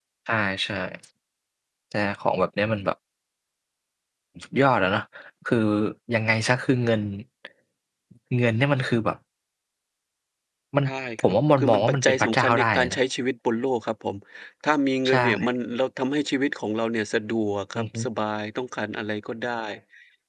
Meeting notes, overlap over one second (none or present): present